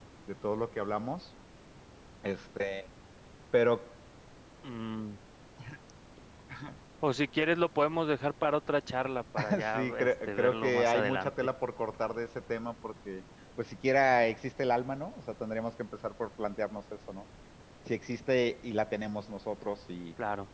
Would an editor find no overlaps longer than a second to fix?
No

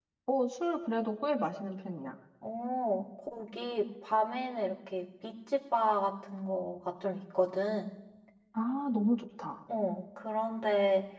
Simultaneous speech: No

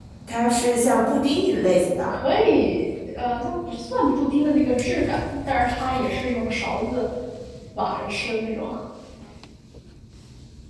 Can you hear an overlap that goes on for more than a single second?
No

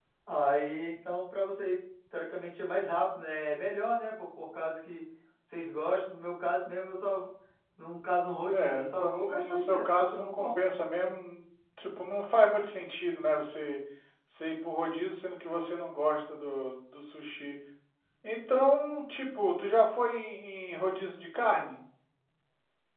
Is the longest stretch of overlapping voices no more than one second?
No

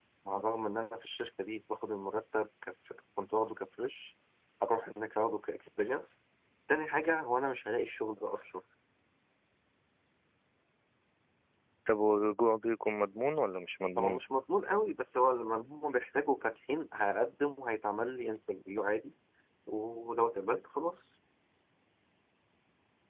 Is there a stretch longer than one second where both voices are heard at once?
No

